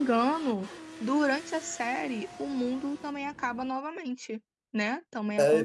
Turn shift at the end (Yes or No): Yes